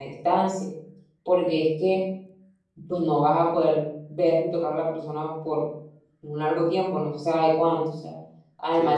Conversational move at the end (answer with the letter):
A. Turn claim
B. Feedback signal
B